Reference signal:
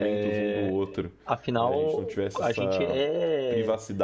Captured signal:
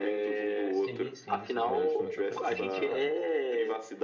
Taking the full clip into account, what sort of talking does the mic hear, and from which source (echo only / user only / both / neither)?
both